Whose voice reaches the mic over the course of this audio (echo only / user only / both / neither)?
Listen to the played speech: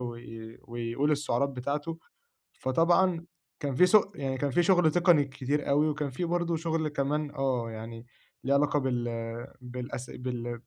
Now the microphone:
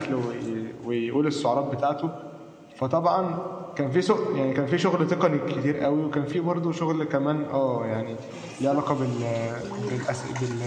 both